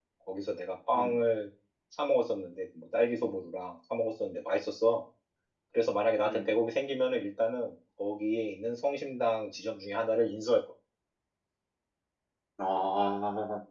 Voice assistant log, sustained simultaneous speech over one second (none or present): none